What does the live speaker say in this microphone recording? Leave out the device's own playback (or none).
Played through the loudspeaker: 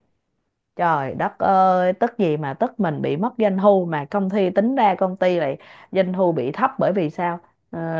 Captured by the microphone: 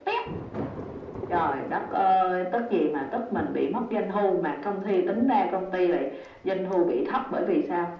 none